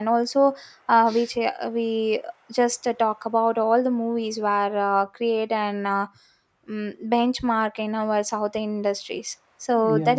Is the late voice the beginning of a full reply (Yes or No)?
No